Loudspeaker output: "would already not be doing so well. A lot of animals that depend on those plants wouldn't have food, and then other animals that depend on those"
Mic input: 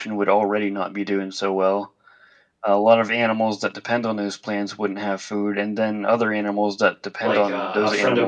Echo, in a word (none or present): present